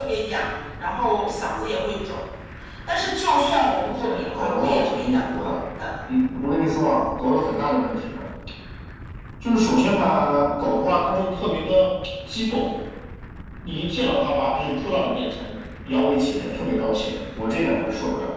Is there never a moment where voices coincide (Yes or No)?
No